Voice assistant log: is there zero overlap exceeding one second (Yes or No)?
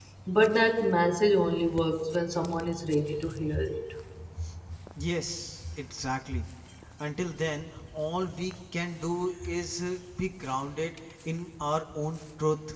Yes